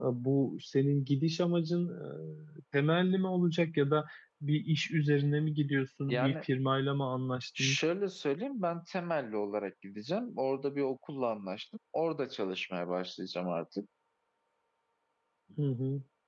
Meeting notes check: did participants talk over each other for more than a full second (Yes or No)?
No